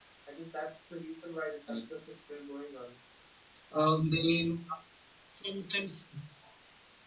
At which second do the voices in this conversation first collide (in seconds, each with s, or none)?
none